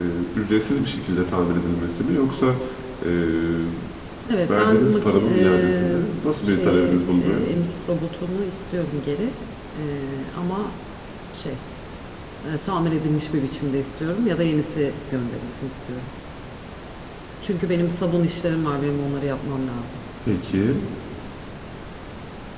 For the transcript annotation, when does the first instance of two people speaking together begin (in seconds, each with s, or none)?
4.5 s